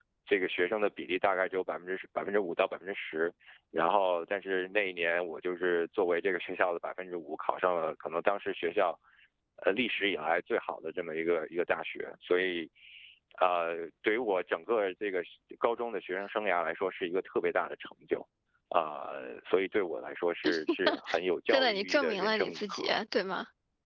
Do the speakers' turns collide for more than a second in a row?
Yes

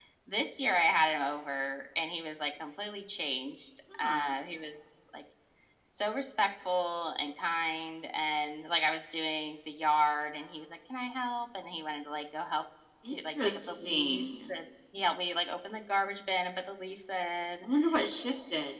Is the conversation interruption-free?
No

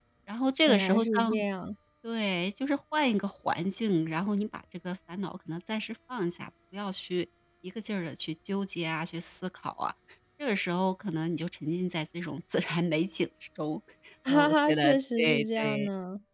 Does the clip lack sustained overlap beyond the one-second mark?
No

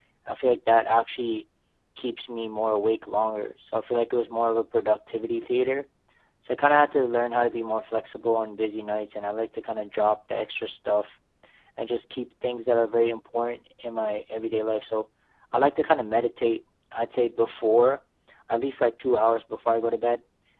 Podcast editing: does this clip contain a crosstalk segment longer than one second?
No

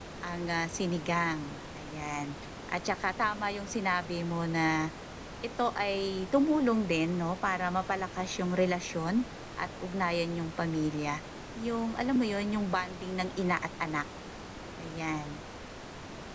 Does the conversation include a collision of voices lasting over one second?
No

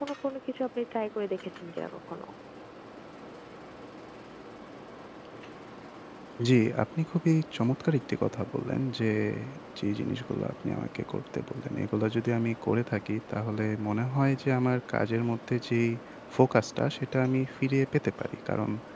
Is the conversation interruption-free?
Yes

